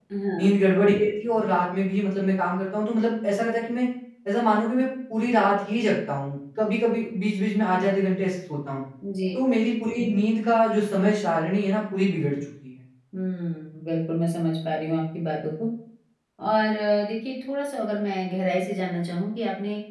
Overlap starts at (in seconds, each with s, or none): none